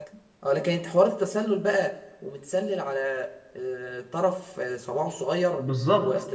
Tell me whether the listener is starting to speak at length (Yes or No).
Yes